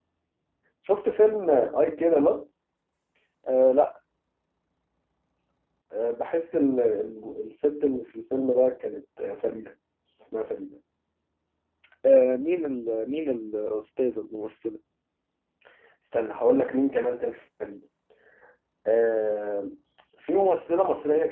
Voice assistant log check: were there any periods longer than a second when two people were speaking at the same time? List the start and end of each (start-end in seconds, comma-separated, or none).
none